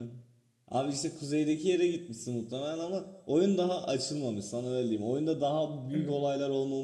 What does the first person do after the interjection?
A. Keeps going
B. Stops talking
A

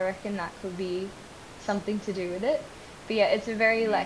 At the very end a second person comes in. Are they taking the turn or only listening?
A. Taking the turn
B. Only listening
B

